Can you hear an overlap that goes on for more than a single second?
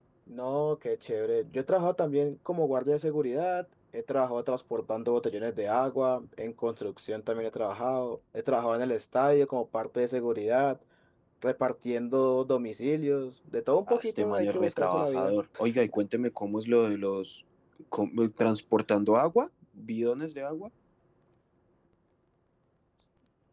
Yes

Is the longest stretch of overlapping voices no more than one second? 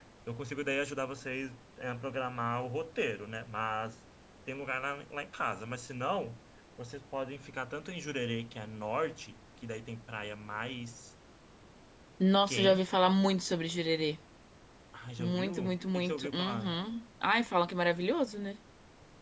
No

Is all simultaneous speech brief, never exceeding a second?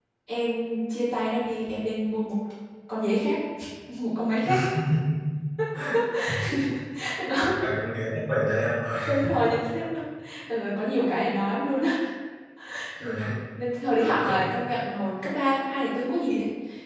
Yes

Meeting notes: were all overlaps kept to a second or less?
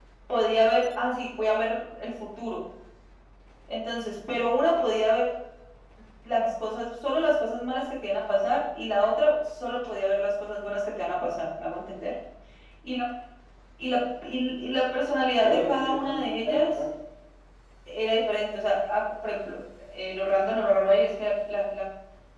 No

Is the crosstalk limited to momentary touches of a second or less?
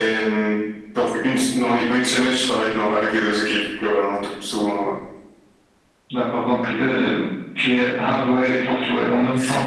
Yes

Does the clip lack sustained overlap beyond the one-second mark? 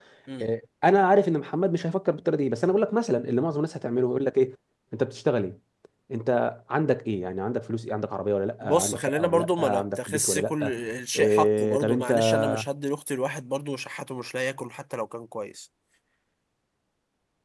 No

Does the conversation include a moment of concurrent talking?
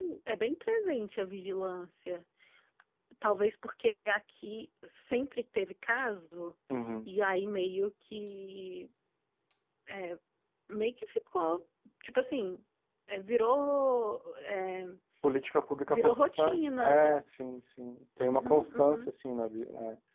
Yes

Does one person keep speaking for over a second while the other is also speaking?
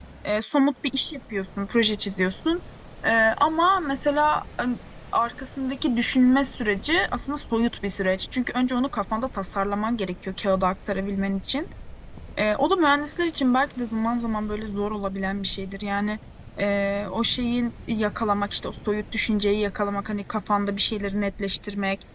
No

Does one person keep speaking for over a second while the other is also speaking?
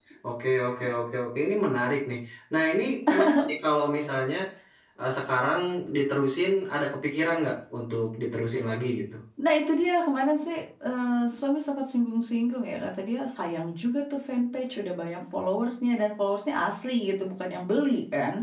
No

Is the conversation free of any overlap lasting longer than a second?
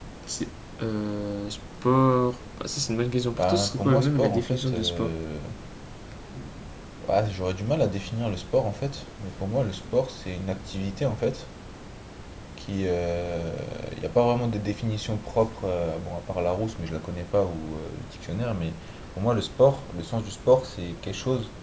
No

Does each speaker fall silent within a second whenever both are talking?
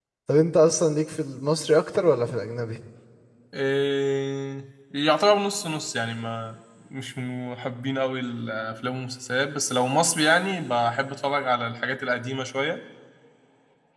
Yes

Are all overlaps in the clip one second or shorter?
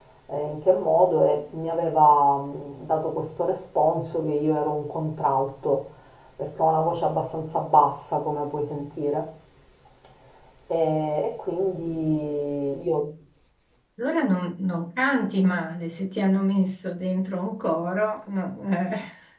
Yes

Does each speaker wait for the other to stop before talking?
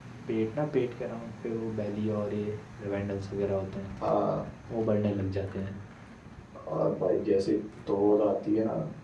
Yes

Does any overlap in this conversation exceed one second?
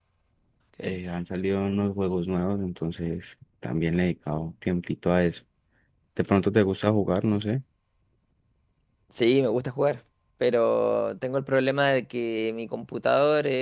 No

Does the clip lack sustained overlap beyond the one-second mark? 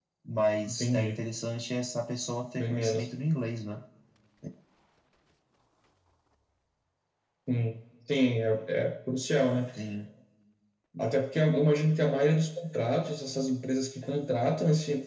Yes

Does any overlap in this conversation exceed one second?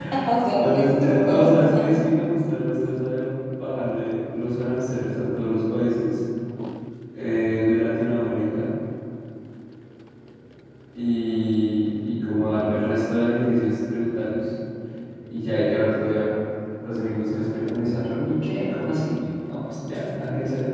Yes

